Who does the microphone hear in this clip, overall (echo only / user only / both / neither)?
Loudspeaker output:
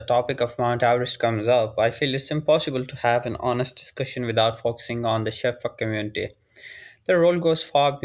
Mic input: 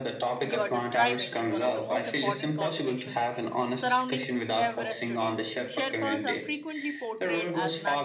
both